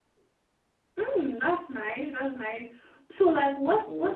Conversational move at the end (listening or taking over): listening